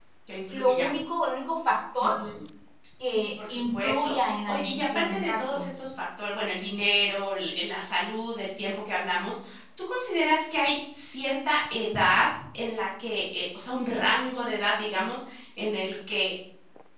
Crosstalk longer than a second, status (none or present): present